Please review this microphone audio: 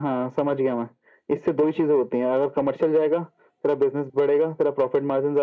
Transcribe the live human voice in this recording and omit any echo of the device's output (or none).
none